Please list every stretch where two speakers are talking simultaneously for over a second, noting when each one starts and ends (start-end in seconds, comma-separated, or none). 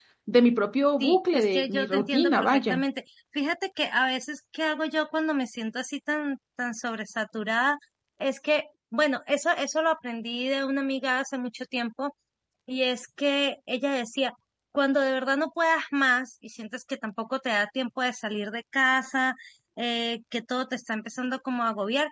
1.0-2.8